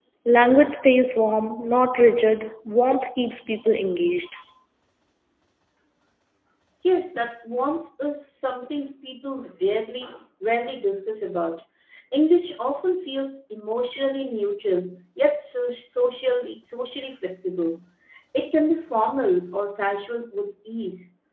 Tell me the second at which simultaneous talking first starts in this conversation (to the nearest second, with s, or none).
none